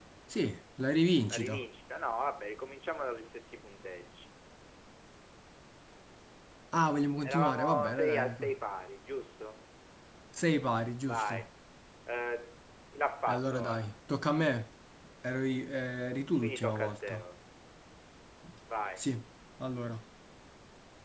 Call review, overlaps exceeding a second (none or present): present